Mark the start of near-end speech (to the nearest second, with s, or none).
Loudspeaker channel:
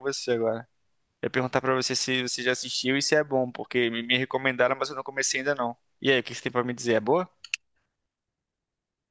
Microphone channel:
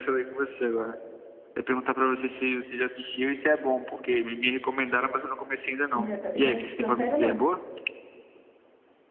6 s